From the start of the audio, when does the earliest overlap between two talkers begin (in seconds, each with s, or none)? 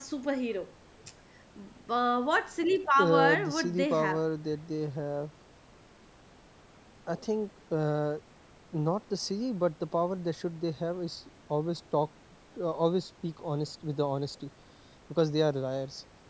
3.0 s